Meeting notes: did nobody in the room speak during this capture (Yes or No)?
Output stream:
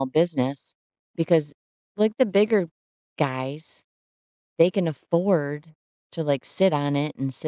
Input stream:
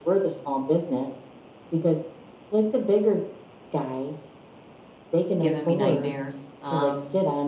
No